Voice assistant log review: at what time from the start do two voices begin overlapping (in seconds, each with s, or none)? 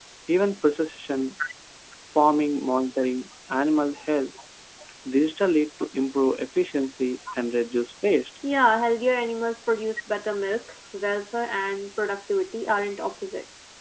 none